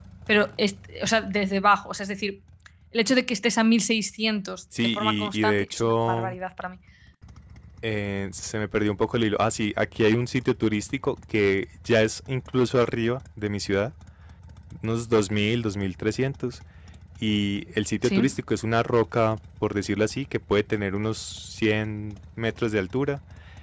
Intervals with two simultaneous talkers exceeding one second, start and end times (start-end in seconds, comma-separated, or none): 4.8-6.4